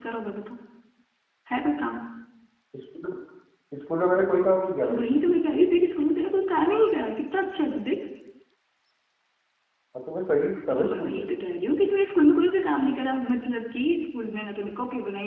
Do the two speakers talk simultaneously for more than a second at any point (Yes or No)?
No